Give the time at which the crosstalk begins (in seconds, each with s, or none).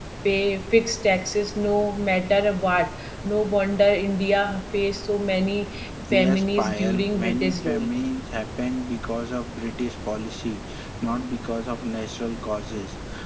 6.1 s